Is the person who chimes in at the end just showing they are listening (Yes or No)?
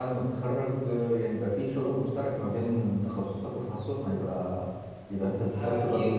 No